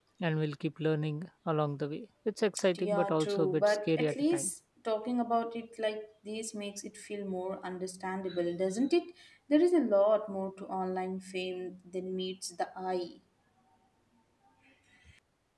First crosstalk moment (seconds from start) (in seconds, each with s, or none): 2.8 s